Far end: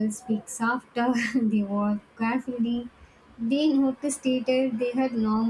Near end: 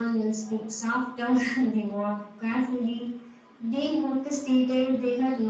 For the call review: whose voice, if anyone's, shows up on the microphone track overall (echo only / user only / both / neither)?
echo only